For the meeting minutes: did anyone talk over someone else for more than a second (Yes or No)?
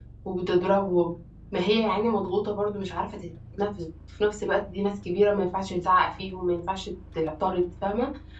No